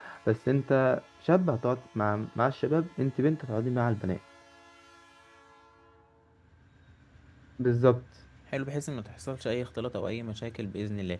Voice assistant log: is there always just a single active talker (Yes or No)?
Yes